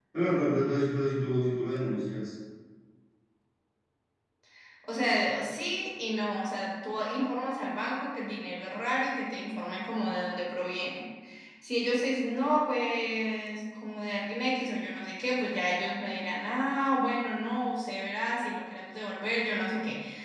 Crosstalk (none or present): none